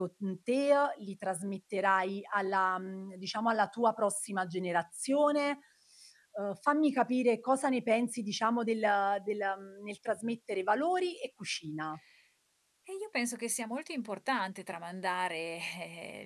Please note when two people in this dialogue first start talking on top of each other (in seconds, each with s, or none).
none